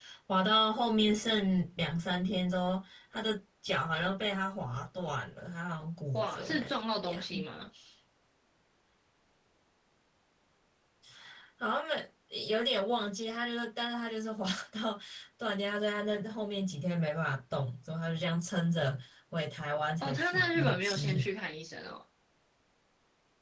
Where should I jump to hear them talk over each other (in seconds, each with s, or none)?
6.1 s